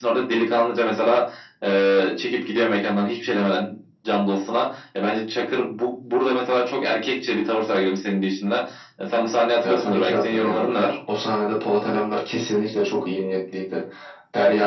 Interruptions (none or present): present